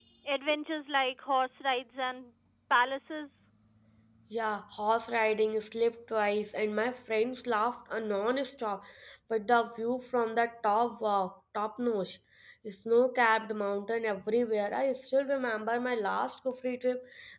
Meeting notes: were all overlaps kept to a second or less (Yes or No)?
Yes